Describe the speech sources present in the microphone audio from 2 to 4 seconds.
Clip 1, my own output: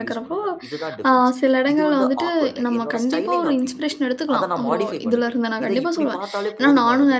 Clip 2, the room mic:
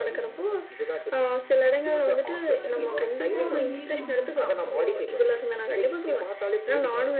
both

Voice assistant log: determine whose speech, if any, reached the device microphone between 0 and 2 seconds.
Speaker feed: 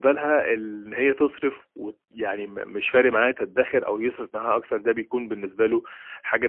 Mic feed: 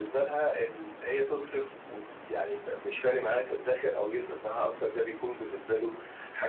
echo only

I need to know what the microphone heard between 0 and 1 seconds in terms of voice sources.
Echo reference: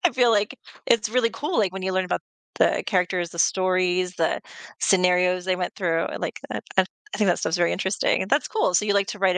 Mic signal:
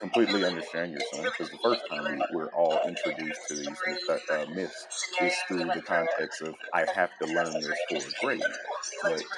both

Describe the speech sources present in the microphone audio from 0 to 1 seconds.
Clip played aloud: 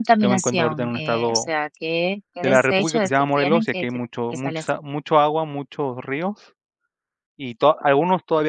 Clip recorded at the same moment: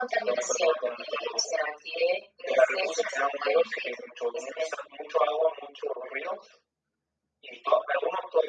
echo only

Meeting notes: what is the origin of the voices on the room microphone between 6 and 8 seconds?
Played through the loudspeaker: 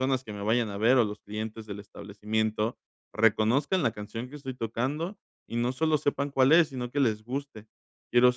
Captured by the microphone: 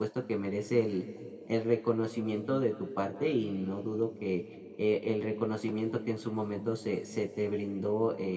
user only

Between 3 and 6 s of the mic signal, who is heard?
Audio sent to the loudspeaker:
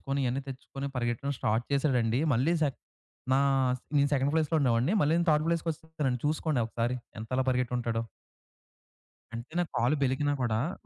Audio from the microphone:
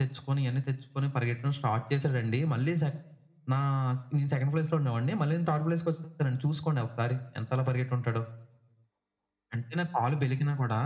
echo only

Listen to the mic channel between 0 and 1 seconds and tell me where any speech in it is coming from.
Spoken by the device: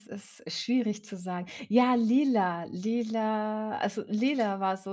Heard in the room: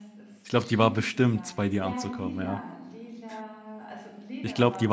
both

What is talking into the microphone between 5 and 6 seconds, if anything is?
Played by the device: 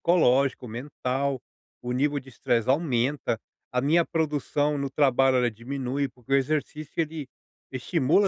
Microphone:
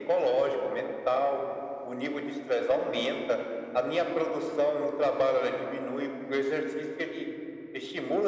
echo only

